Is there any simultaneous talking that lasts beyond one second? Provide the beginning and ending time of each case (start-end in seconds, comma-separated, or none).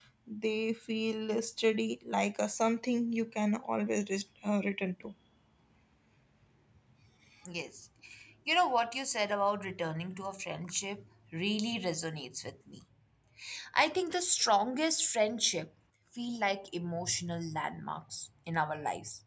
none